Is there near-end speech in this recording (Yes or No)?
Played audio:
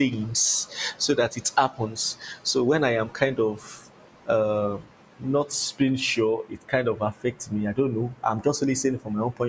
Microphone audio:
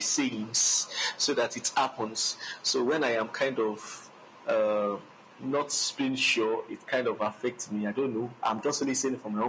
No